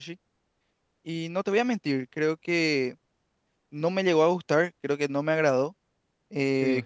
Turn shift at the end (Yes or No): No